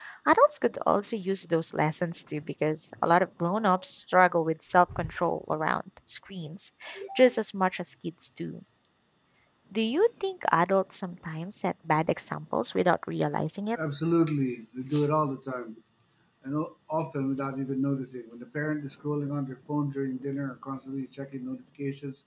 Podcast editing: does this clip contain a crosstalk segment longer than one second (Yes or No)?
No